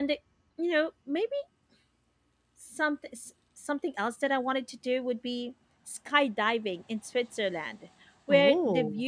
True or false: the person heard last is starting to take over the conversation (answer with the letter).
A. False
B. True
A